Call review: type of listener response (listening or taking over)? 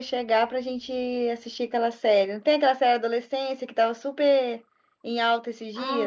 taking over